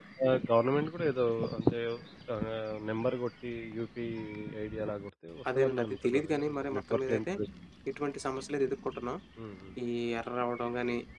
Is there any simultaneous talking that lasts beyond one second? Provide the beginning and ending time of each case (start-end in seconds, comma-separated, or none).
5.6-7.2